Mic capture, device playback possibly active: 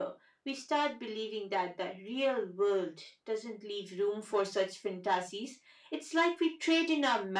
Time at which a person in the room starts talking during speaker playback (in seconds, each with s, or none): none